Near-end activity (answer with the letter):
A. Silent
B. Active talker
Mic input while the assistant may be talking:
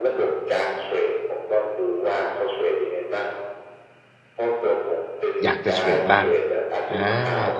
B